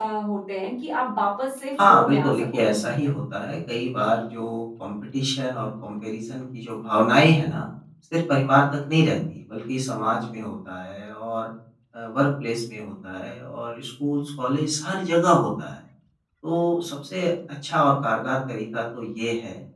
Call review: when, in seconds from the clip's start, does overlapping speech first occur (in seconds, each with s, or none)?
1.8 s